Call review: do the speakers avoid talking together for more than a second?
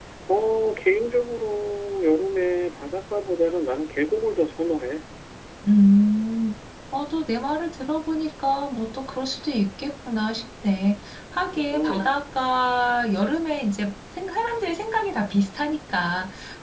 Yes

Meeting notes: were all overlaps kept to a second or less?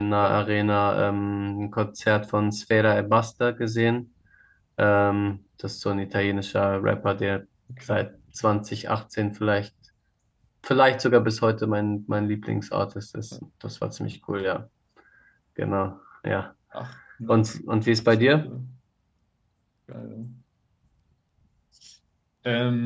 Yes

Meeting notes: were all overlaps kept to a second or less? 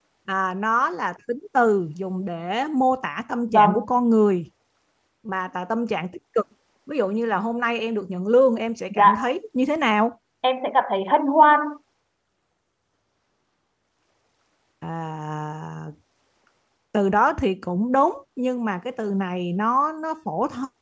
Yes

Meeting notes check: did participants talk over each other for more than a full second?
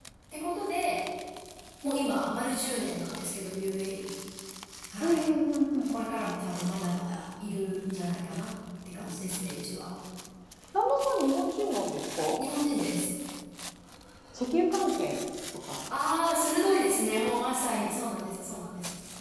No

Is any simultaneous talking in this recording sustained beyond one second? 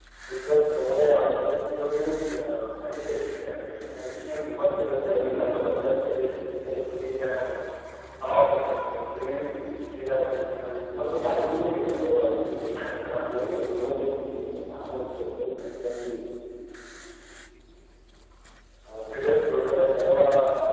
Yes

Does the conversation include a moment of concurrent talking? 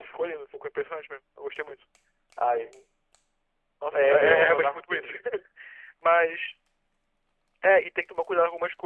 Yes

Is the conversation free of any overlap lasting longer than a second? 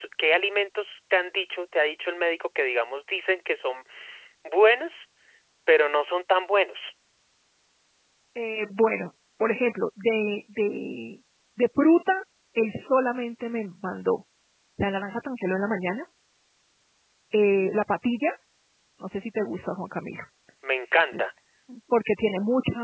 Yes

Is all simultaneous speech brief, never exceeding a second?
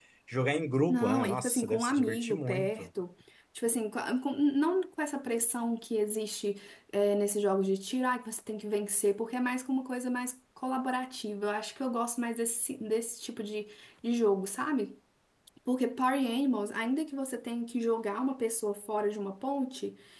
No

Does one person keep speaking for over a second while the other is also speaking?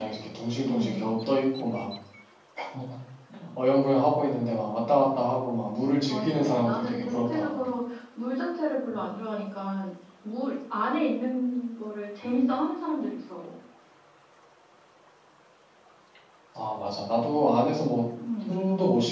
Yes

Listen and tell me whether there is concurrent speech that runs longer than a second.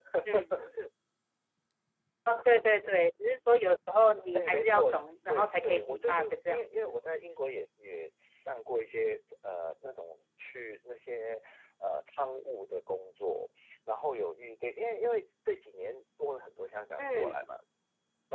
Yes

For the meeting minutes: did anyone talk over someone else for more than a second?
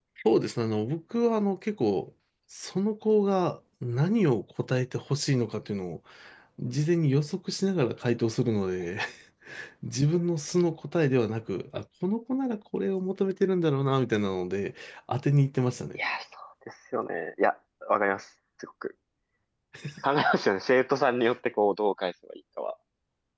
No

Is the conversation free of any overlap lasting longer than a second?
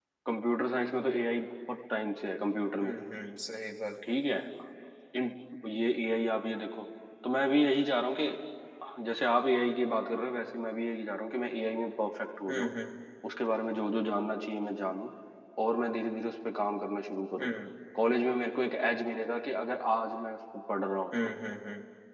Yes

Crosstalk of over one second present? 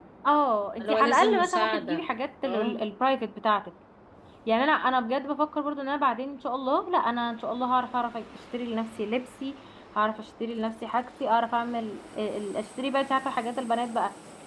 Yes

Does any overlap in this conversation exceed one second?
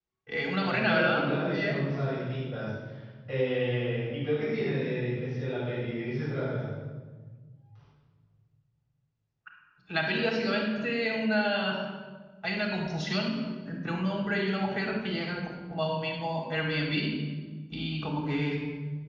Yes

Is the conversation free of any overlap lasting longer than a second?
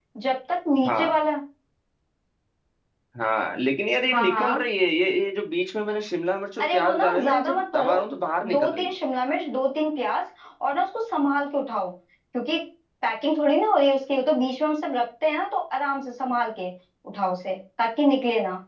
No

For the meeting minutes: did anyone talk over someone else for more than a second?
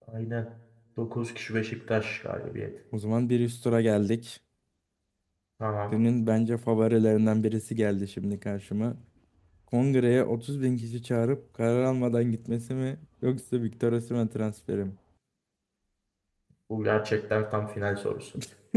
No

